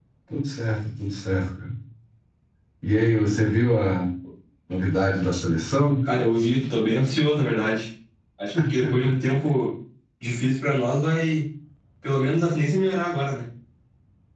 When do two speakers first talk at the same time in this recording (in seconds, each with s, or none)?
none